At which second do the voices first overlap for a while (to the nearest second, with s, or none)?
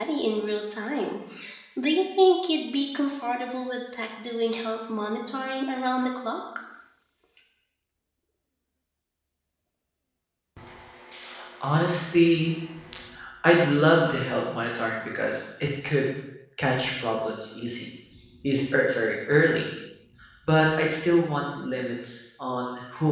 none